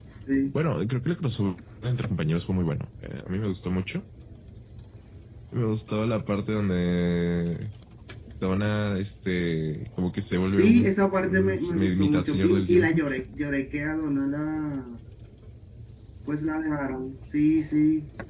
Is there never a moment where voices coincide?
No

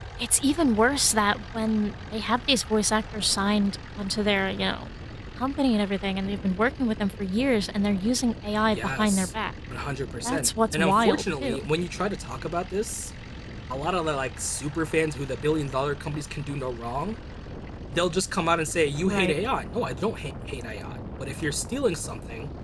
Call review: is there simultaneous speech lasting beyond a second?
Yes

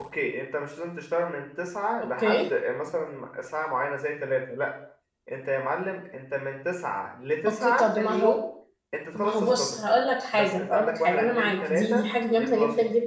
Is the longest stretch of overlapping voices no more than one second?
No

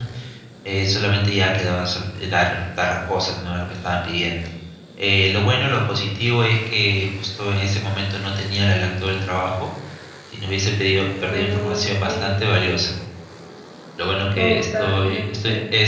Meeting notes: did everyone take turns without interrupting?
No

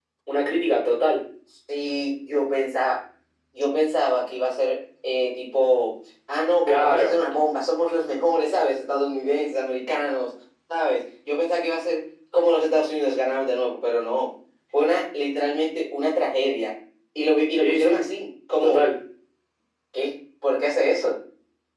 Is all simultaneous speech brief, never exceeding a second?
Yes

